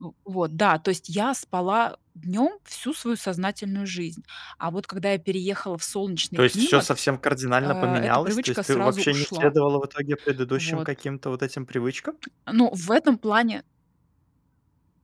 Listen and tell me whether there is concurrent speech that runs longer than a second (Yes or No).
Yes